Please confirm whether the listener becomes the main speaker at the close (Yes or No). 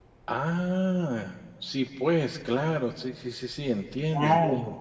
Yes